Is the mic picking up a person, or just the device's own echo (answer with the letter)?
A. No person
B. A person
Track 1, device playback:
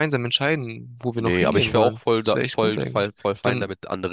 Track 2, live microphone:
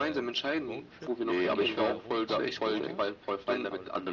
B